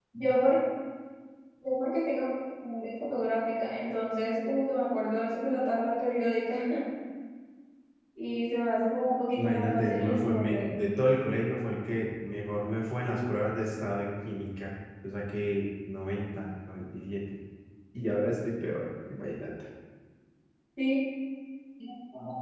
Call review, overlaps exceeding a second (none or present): present